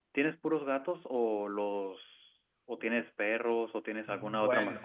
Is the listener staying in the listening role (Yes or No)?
Yes